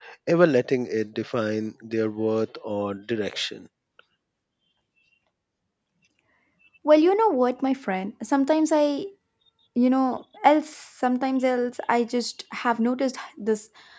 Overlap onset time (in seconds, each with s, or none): none